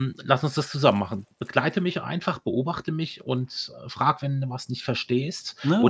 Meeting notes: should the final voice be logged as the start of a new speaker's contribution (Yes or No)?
No